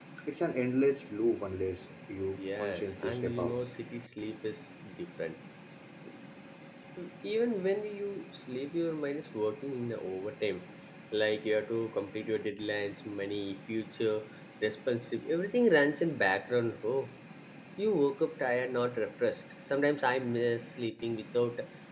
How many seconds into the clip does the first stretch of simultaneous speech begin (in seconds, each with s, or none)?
2.4 s